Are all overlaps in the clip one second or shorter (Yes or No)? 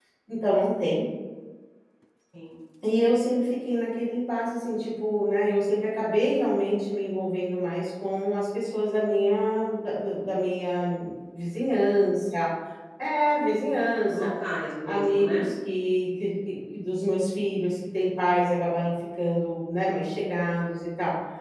Yes